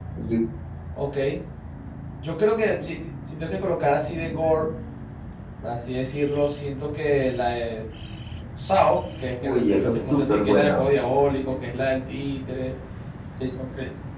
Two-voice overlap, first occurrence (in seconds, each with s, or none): 9.4 s